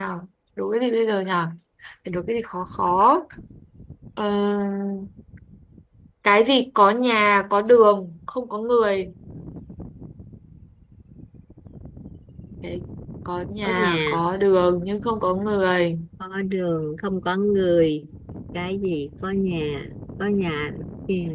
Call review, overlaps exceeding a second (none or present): none